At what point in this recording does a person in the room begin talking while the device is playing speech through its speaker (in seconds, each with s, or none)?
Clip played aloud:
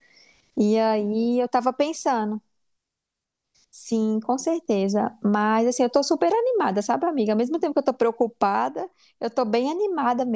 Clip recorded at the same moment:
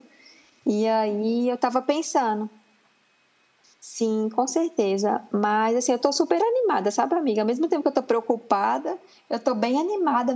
none